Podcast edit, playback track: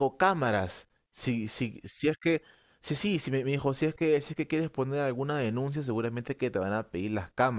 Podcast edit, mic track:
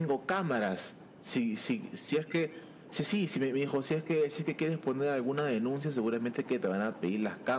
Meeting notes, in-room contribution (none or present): none